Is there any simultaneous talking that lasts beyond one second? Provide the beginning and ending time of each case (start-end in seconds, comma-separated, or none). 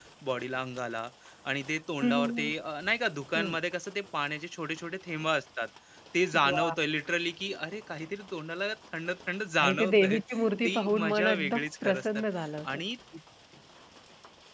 9.6-12.2